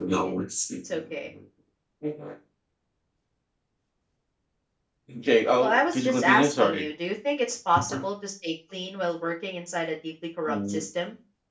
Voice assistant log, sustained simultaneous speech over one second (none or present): present